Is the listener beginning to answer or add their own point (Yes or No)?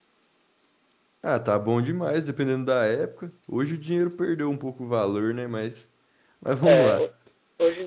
Yes